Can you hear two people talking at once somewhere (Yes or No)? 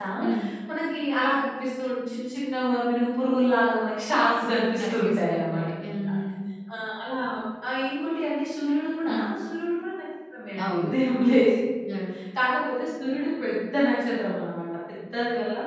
Yes